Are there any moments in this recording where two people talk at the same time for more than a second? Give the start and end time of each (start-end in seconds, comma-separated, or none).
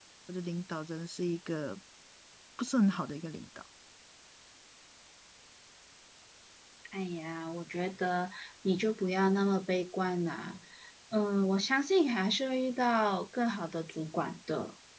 none